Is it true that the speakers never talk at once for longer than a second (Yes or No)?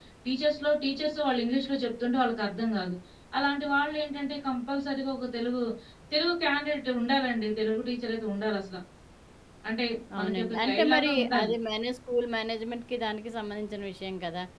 No